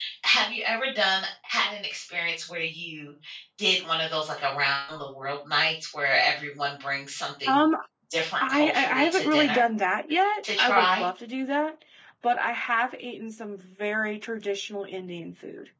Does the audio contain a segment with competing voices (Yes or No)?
Yes